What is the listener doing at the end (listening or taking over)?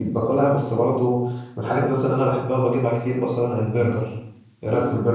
taking over